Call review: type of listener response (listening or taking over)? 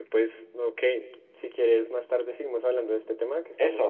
taking over